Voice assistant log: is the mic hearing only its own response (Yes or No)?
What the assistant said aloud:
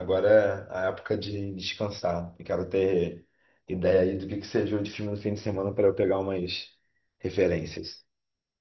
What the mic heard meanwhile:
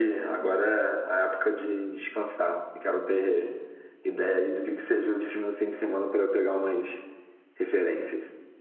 Yes